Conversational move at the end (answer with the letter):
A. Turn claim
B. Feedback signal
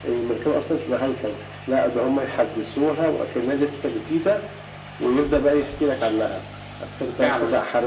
B